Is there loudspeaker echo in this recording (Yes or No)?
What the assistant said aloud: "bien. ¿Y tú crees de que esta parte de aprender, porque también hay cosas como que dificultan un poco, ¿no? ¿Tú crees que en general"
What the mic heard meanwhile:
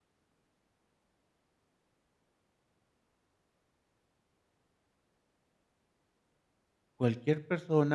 No